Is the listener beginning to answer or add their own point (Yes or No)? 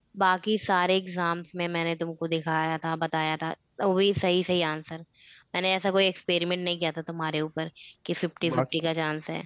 No